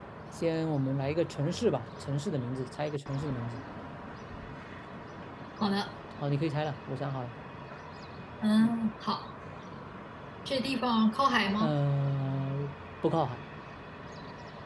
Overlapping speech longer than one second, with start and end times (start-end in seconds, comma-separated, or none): none